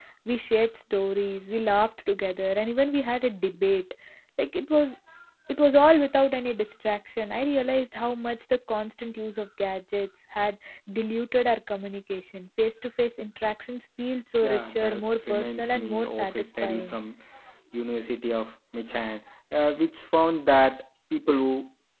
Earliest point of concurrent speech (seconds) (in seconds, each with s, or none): 14.4 s